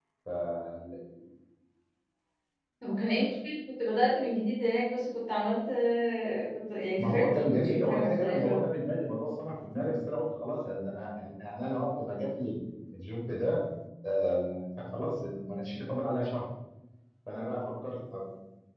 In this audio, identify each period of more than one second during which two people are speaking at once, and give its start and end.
7.0-8.7

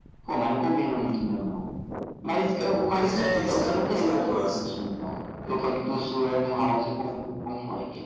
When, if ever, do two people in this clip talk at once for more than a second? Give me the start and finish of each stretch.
2.9-4.6

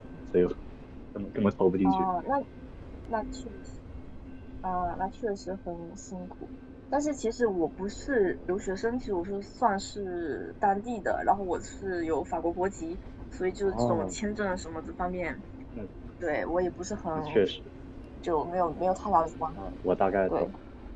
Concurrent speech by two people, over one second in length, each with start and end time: none

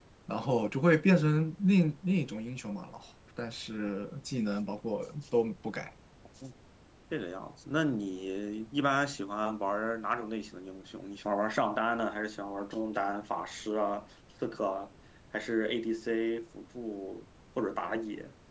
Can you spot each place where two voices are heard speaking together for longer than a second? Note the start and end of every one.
none

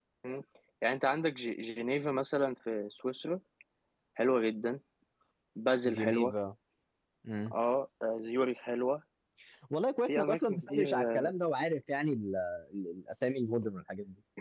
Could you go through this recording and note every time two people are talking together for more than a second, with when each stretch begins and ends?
10.1-11.3

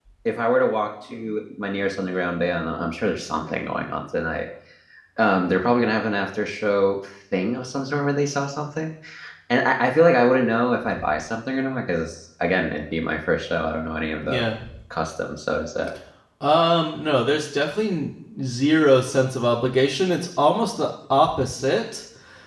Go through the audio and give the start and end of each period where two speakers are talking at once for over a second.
none

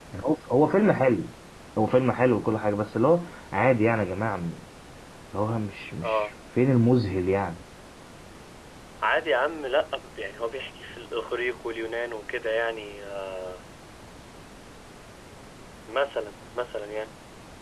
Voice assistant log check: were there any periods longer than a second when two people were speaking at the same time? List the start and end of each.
none

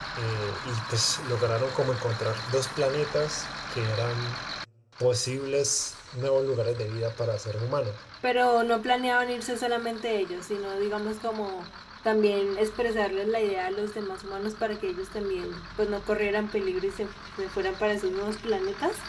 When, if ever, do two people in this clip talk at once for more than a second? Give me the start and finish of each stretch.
none

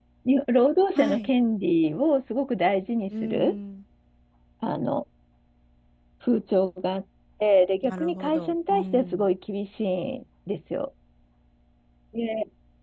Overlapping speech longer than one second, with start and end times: 7.8-9.3

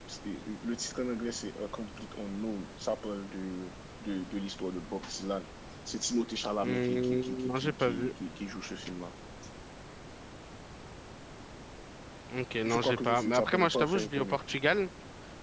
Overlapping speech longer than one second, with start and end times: 6.6-8.1, 12.7-14.4

